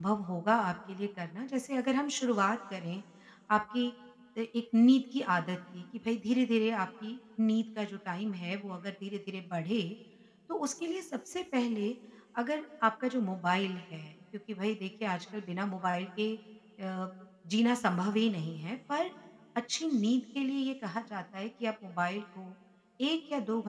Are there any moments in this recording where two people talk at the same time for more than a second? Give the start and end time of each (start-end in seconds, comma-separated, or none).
none